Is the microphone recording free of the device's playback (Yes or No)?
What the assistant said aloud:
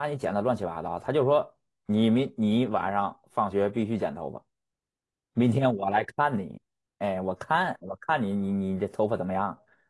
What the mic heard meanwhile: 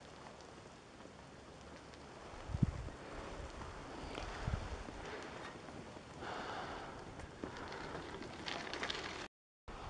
Yes